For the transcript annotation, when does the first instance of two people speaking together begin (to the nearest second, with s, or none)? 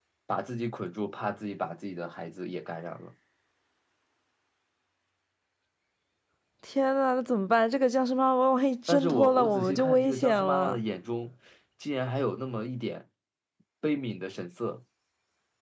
9 s